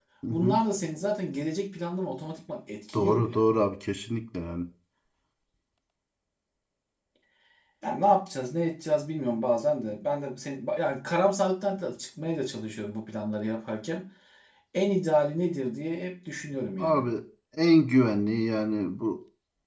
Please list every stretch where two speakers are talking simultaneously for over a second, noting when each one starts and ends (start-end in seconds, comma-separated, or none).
none